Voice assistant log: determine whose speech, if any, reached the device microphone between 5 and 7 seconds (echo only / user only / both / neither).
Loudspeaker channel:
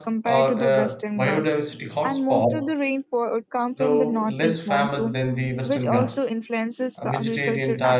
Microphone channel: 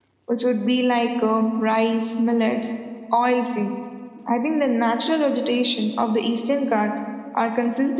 user only